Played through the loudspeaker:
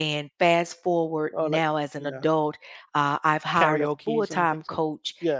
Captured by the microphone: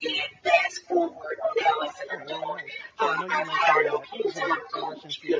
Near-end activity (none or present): present